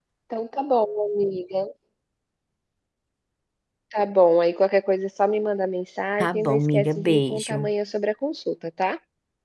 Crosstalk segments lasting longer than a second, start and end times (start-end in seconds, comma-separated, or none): 6.2-7.7